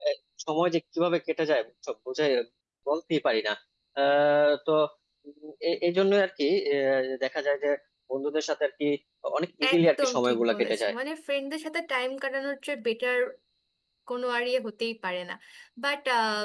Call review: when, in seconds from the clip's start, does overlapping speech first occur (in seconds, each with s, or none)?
9.7 s